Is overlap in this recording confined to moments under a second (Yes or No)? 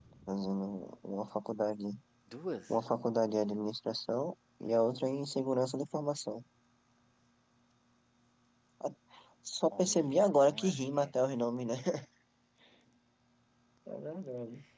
No